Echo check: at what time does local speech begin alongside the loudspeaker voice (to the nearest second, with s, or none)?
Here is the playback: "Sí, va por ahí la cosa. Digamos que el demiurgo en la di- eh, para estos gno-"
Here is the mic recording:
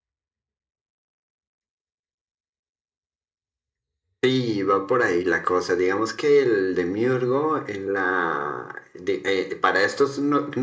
none